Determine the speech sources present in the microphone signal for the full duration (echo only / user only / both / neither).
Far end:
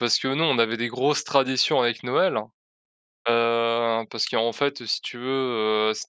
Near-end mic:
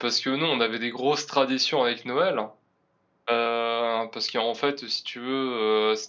echo only